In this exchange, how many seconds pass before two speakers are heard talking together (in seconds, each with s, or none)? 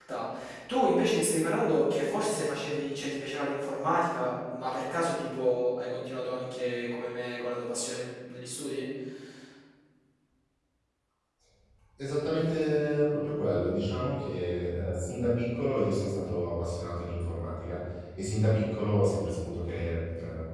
none